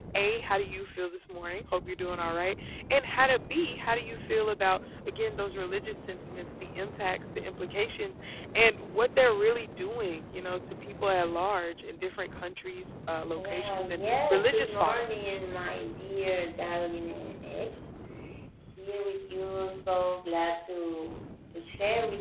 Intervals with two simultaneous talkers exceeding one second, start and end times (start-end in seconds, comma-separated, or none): 13.4-15.4